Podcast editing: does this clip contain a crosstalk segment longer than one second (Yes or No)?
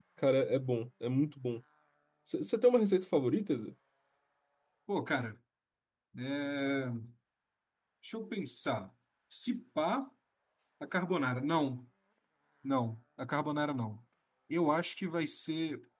No